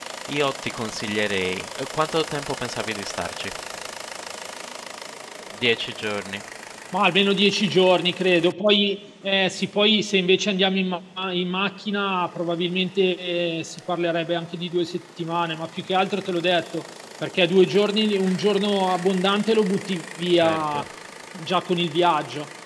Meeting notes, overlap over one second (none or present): none